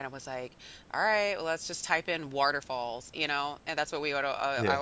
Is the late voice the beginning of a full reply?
No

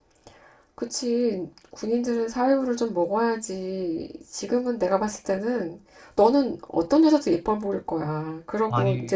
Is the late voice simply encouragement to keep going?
Yes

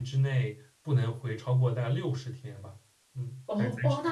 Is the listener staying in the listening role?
No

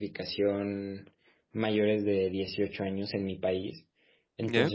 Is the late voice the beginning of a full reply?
No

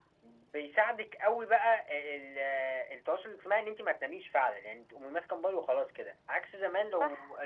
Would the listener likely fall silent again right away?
Yes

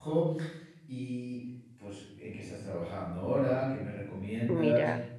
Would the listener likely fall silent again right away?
Yes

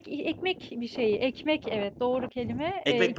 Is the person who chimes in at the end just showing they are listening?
Yes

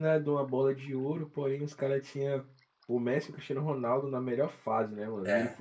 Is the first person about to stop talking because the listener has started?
No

